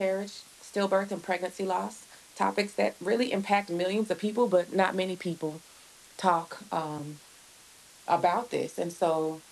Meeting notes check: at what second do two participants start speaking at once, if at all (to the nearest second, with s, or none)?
none